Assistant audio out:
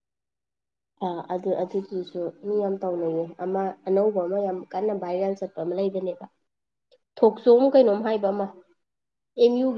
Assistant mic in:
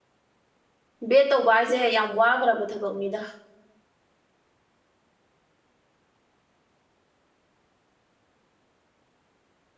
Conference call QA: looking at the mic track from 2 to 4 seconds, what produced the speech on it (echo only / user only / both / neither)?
user only